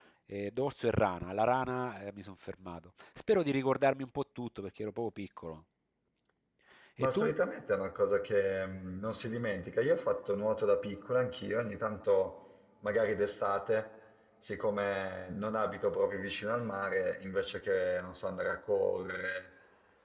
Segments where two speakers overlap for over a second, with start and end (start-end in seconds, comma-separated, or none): none